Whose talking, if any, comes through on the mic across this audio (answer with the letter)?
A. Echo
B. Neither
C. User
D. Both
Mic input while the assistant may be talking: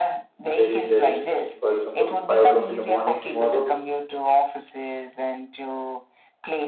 D